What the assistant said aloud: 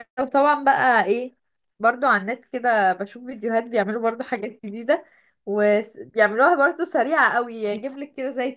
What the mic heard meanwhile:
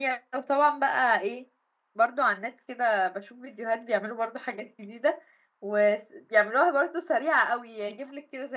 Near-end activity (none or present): none